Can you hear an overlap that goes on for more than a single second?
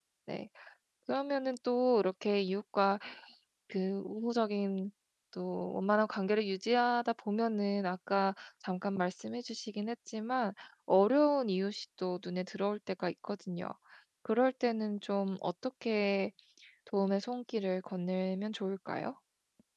No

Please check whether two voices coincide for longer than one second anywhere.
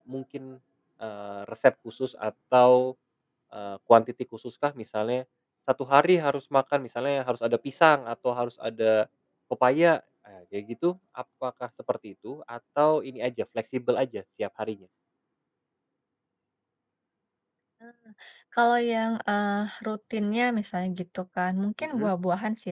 No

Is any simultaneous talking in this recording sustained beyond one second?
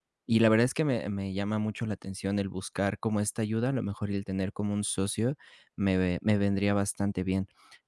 No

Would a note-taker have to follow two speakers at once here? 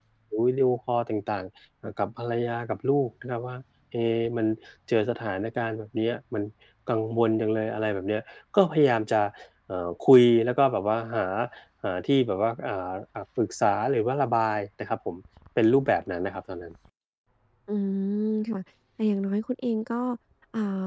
No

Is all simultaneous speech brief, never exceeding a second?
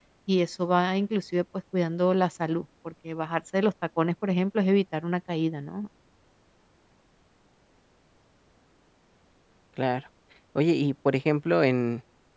Yes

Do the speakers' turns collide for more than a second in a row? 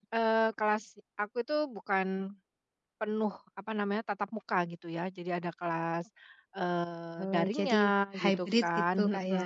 Yes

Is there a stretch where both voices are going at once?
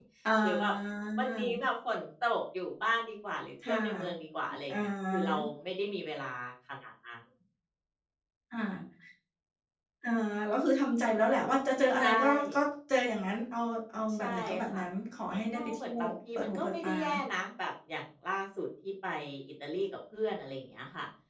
Yes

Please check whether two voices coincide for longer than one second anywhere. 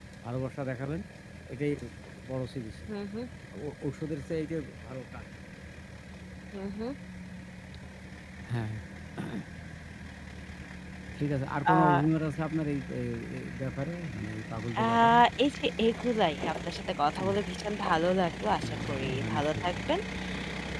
Yes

